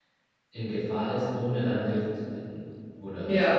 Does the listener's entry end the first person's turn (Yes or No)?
No